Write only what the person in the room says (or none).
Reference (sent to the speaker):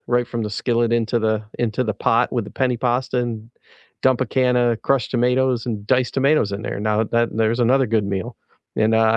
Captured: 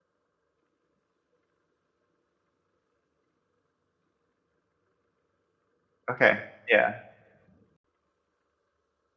Okay. Yeah,